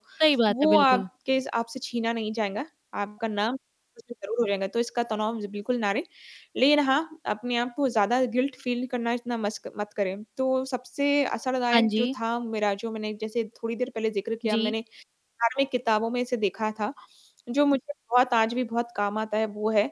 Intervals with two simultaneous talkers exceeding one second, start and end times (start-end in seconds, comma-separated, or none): none